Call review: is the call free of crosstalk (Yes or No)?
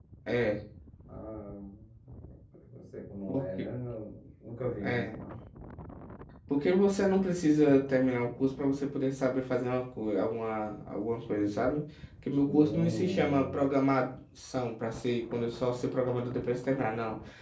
No